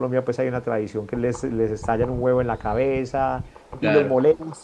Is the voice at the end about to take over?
No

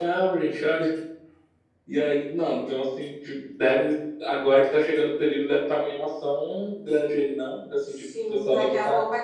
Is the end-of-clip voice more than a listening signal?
Yes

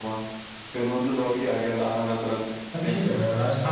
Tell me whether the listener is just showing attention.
No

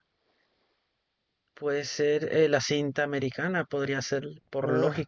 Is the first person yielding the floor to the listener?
Yes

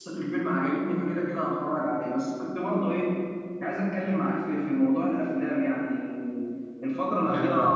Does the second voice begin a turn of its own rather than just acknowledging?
No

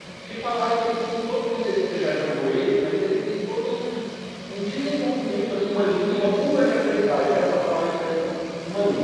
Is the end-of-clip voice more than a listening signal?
No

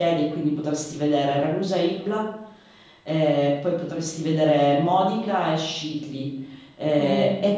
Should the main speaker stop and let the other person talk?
No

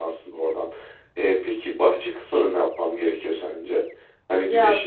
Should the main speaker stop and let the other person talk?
No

